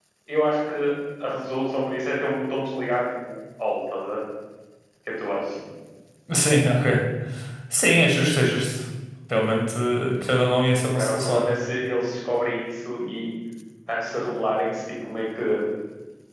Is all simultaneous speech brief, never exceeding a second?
Yes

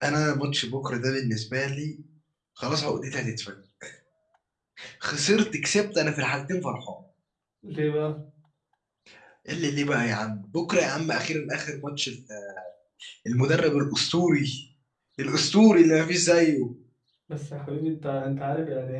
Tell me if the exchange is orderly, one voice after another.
Yes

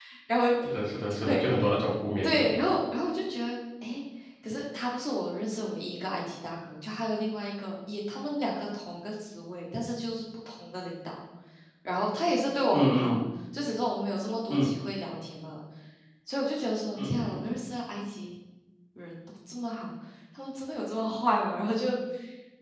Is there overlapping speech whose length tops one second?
No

